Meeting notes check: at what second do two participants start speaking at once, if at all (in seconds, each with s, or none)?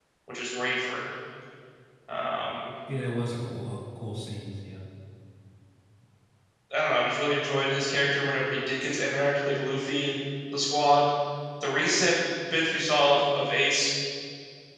none